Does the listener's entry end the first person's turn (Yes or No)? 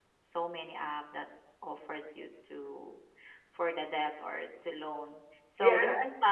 No